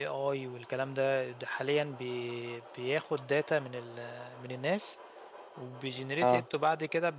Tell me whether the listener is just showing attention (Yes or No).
Yes